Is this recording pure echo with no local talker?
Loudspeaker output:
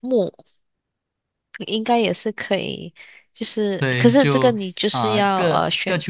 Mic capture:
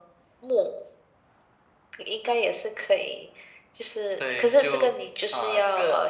Yes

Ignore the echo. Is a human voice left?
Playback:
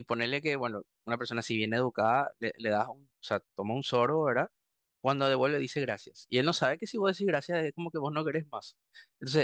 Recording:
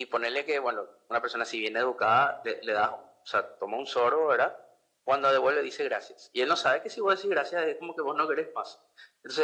No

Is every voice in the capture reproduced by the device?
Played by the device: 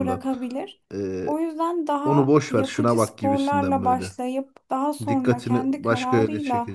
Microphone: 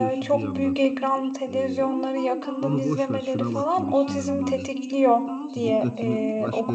No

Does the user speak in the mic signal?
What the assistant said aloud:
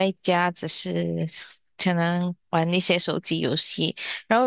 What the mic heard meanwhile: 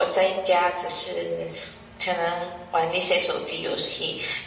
No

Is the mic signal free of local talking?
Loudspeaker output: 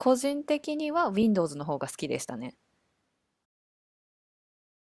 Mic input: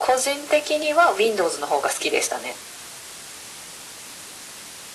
Yes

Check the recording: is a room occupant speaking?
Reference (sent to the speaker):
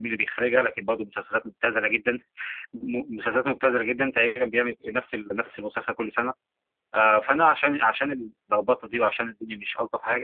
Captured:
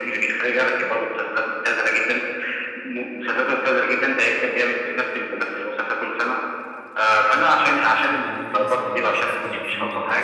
Yes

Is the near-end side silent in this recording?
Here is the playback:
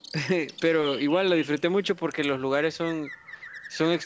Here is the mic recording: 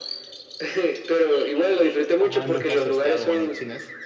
No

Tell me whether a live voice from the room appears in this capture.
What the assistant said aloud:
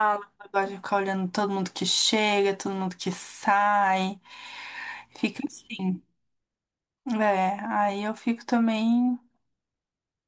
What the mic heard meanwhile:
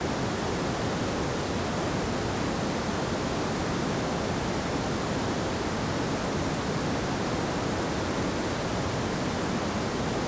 No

